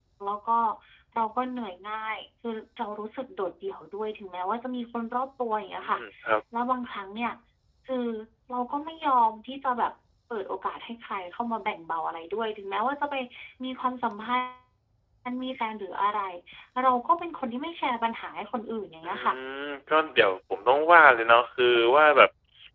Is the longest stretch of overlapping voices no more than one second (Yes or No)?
Yes